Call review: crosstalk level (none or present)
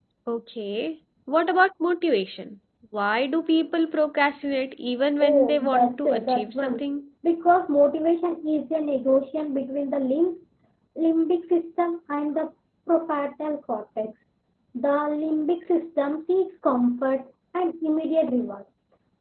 present